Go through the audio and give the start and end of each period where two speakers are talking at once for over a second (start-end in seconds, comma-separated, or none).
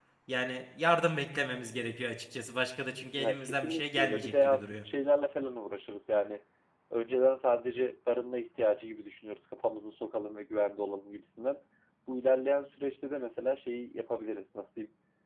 3.2-4.8